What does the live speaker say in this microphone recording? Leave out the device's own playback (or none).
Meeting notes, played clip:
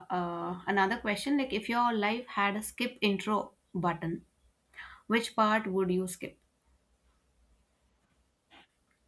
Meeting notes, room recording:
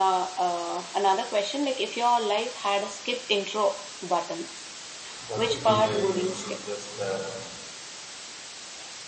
what would be my useless talent?